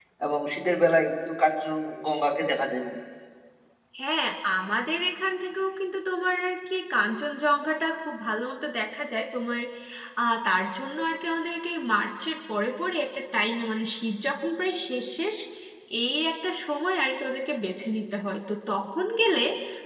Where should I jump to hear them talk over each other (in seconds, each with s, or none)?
none